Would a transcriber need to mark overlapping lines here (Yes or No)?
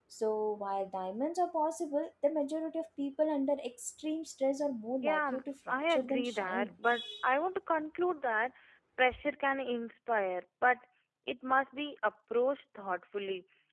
Yes